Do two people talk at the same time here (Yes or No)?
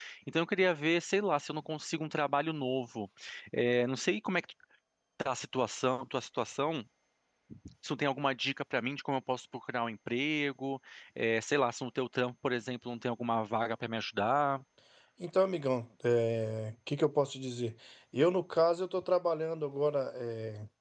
No